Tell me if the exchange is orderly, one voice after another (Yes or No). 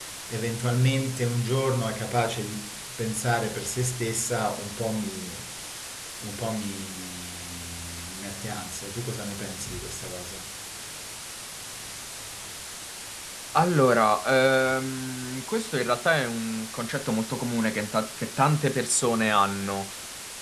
Yes